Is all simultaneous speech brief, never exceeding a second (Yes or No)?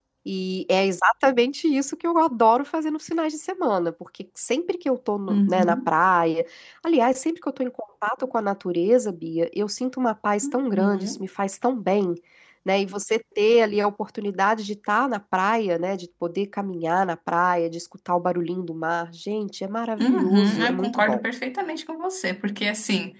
No